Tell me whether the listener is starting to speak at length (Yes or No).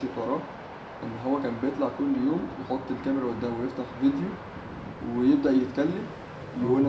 No